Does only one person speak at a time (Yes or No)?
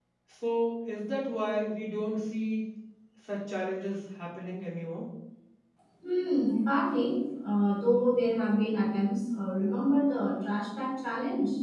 Yes